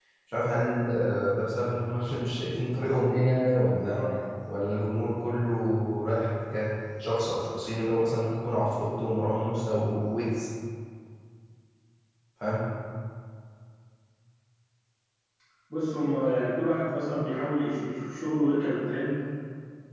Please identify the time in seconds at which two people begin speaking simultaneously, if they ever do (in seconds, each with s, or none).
none